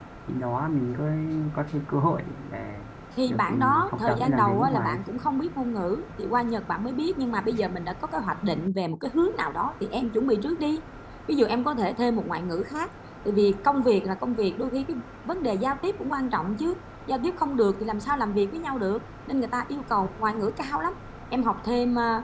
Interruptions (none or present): present